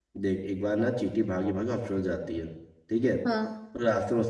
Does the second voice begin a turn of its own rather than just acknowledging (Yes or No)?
No